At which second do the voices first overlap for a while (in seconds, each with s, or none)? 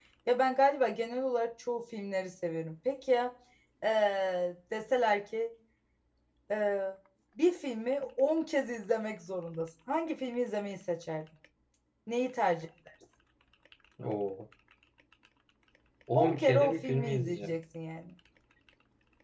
16.2 s